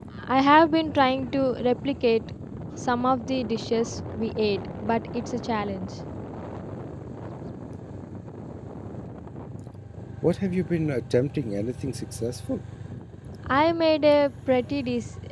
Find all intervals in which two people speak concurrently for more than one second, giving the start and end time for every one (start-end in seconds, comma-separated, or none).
none